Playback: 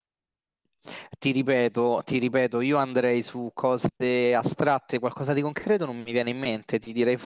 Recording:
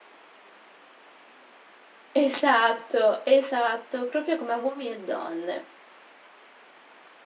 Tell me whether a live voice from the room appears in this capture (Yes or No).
Yes